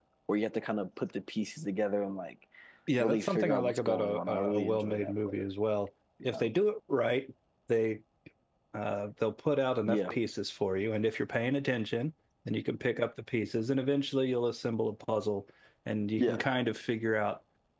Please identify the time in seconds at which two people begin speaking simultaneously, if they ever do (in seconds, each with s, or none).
3.0 s